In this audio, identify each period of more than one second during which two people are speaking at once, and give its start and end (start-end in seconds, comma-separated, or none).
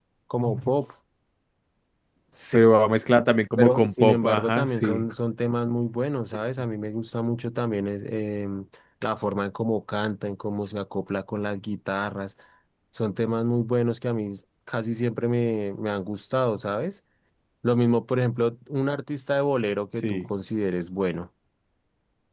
3.6-5.0